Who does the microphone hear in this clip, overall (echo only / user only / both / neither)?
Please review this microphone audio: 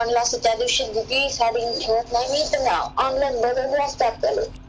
echo only